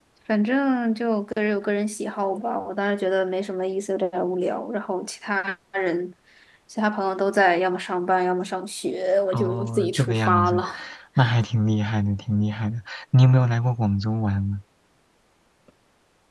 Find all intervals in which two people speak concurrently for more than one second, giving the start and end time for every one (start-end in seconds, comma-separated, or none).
9.3-10.6